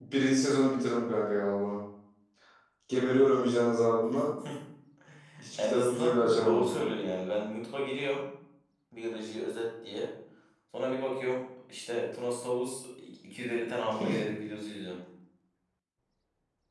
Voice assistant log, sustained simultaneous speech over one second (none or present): present